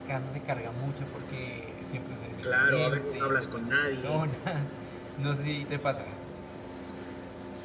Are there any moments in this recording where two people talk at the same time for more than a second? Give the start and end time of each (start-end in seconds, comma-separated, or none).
2.4-4.2